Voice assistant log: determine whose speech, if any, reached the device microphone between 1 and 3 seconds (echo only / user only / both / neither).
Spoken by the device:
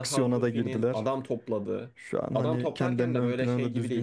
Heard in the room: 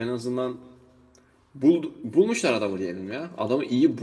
user only